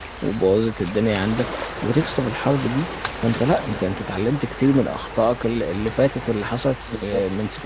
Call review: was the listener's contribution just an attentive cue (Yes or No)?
No